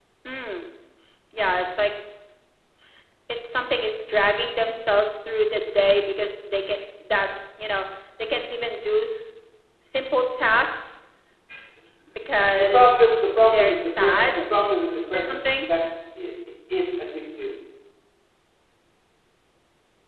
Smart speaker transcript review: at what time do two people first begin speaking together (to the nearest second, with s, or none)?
13 s